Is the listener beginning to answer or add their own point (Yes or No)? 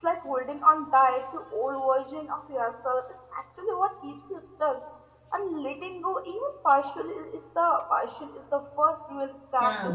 Yes